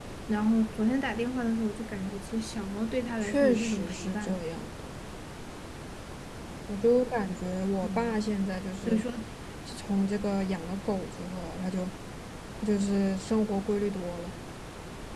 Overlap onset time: 3 s

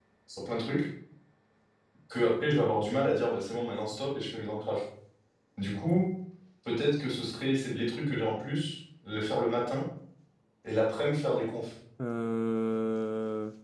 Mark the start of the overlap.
none

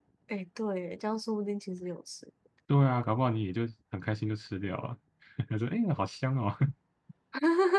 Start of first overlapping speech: none

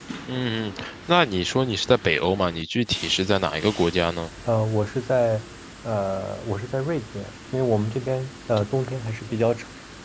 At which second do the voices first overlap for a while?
none

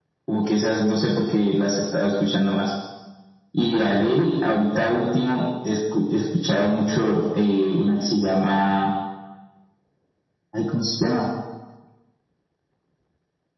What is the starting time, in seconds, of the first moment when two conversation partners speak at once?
none

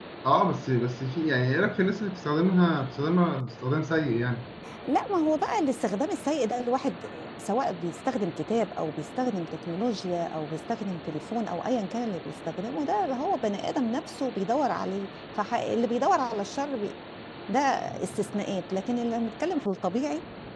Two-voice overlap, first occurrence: none

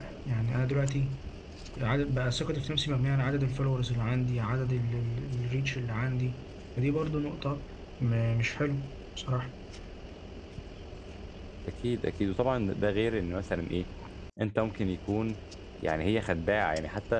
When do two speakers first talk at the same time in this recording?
none

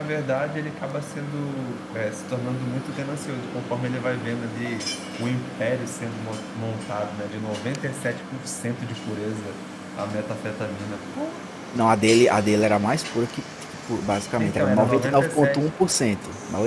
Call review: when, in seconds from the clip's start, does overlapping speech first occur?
14 s

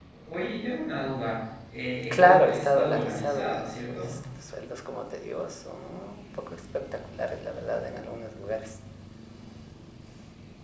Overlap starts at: 2 s

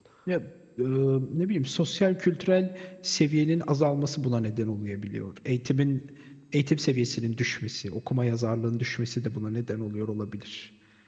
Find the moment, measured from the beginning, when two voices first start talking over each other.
none

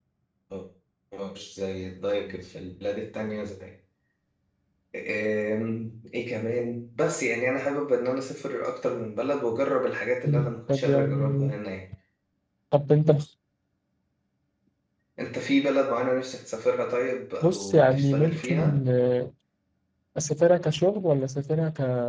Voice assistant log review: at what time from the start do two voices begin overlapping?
10 s

